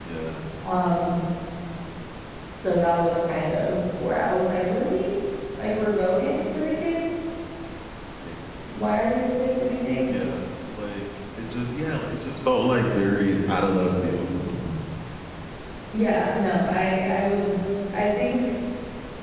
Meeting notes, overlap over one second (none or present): none